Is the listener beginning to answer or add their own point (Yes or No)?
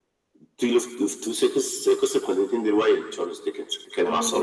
No